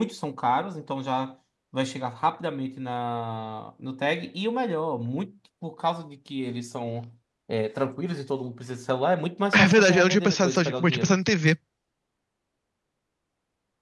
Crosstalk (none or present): present